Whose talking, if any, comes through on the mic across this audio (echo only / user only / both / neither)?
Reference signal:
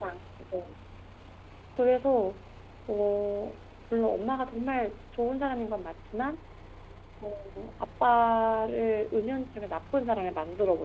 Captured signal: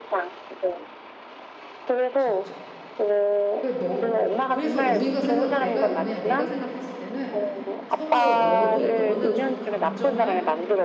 both